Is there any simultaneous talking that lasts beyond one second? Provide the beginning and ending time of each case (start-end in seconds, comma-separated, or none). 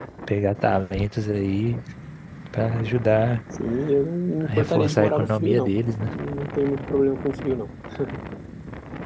4.4-5.7